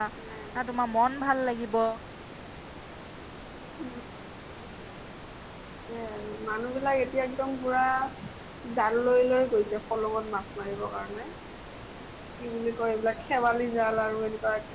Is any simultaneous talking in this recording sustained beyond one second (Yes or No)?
No